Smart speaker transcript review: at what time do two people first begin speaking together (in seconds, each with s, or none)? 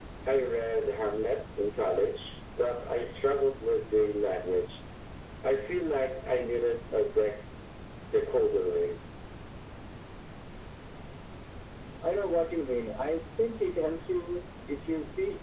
none